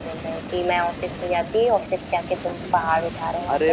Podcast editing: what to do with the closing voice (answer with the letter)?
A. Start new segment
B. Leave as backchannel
A